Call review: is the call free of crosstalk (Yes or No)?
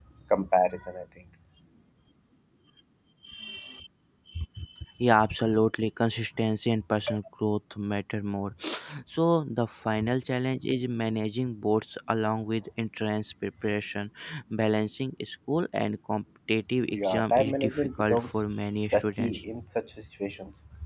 No